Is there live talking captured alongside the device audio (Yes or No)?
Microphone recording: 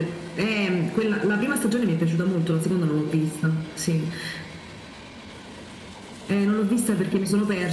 No